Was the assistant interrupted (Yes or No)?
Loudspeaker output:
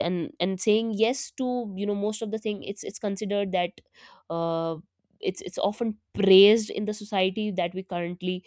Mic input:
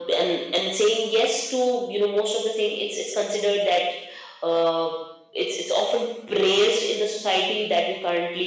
No